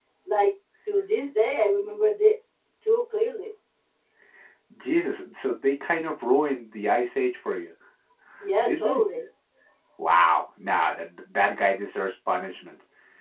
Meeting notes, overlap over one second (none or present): none